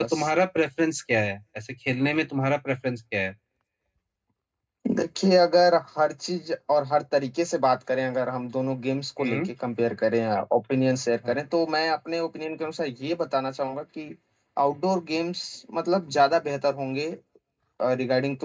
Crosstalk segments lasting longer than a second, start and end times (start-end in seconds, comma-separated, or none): none